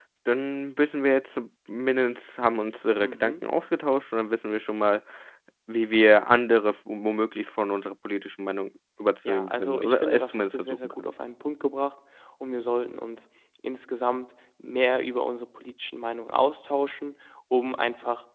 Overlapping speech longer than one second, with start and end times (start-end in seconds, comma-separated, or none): 9.2-11.1